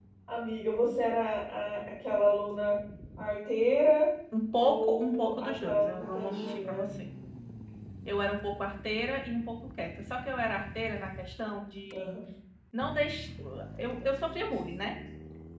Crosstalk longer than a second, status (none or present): present